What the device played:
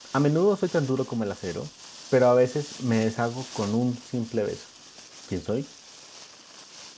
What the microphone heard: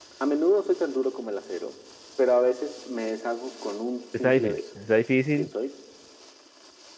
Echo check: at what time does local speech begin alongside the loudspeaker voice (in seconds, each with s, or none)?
4.1 s